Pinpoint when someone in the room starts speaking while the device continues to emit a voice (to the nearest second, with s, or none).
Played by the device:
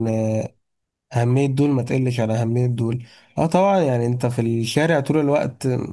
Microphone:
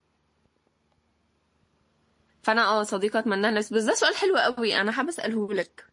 2 s